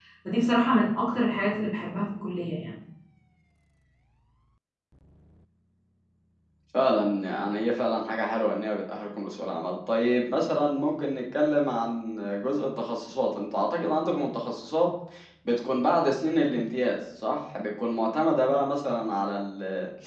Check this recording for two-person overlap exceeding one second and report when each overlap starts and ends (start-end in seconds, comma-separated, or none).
none